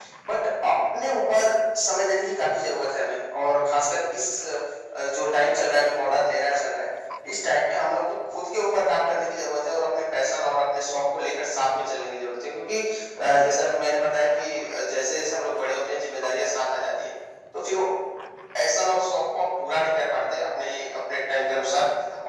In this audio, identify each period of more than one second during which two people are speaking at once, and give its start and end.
none

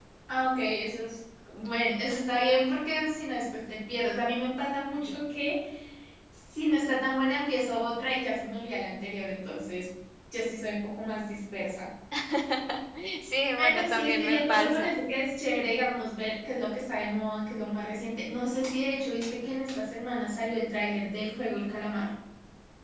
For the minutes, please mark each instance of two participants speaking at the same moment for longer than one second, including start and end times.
13.6-15.0

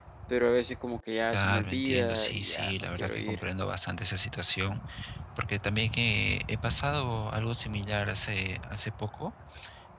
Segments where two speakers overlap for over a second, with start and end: 1.3-3.4

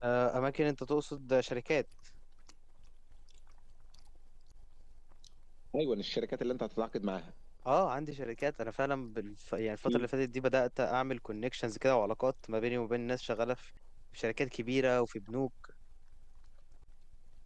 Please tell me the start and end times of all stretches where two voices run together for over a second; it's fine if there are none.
none

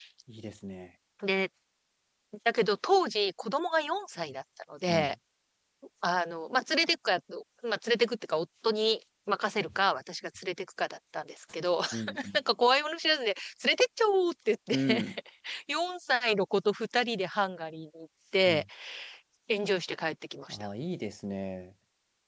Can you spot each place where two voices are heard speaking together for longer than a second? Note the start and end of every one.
none

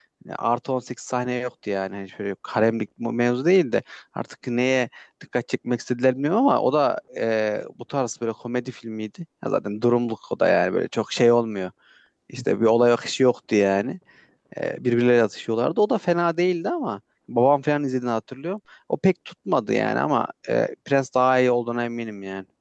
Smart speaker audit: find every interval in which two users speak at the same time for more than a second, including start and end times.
none

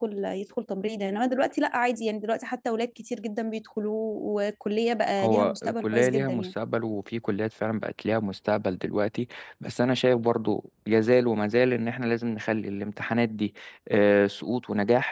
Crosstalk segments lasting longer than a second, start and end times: 5.2-6.5

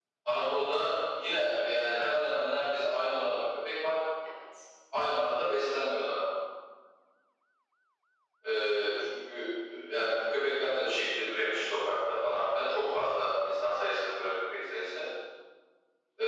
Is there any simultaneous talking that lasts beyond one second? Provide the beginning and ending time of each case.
none

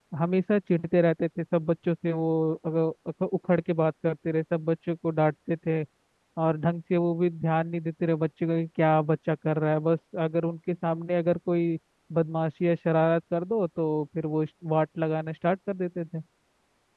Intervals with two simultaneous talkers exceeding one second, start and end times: none

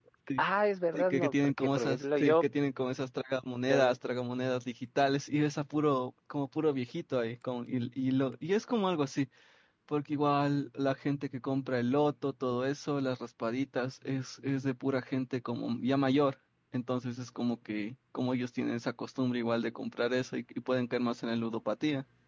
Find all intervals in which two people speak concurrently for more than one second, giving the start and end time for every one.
0.9-2.4

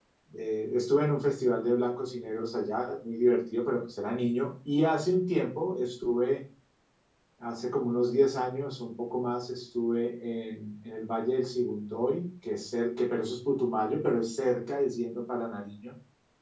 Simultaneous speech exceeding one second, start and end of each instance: none

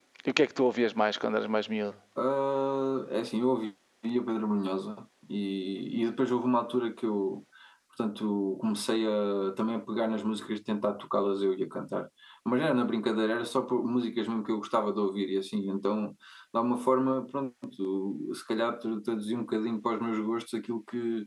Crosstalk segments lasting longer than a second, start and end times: none

